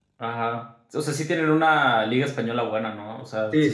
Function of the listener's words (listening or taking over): taking over